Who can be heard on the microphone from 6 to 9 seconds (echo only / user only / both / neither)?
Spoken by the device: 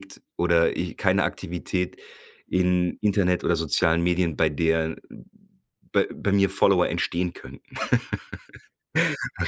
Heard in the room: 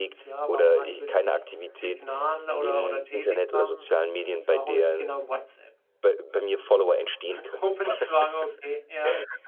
both